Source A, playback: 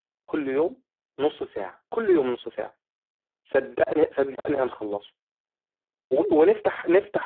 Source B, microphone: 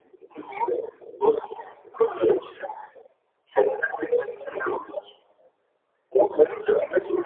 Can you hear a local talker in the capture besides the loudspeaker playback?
No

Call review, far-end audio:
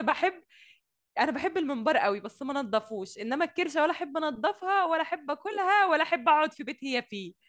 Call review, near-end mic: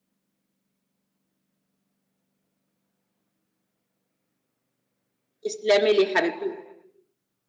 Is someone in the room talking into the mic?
Yes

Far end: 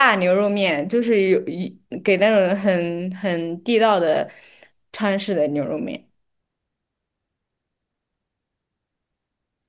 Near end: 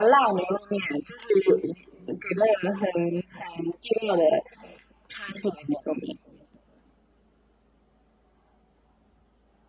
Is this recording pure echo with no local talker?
Yes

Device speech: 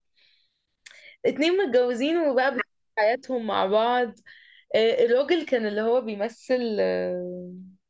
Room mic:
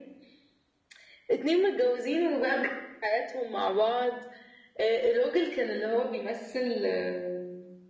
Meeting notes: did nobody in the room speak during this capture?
Yes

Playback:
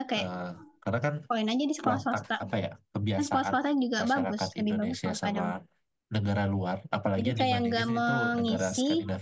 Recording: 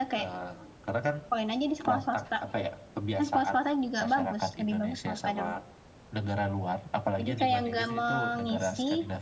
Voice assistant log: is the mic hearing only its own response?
Yes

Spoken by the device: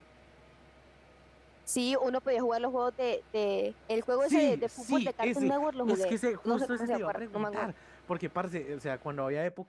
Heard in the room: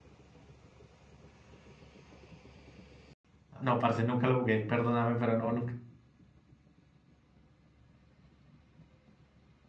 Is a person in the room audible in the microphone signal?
Yes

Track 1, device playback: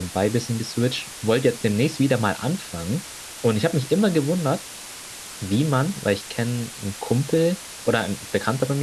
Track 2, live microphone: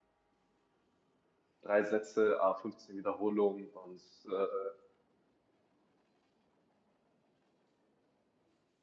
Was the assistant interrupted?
Yes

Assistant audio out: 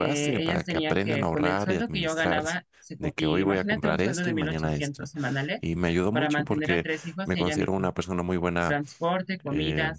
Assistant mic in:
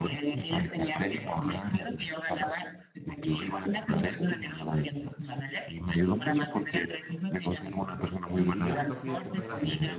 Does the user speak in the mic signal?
Yes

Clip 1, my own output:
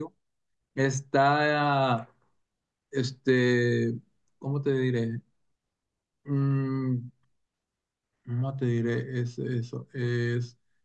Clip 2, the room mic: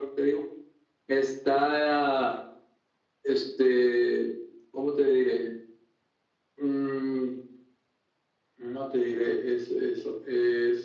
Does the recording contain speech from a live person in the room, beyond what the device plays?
No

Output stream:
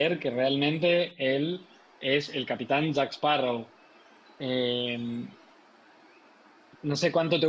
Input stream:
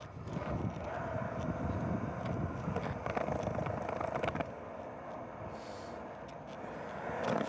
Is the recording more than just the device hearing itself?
No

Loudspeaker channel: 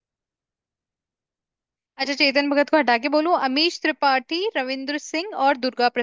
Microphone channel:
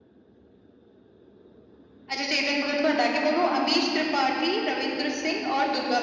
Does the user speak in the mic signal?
No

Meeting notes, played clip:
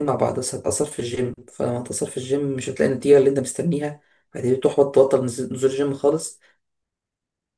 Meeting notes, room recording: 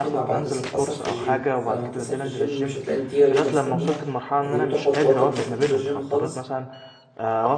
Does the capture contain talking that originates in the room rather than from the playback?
Yes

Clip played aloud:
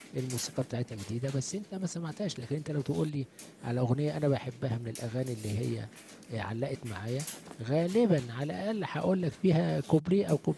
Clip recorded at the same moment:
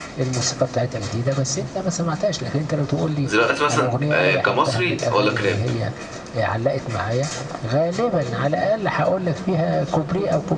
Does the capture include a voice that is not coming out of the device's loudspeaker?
Yes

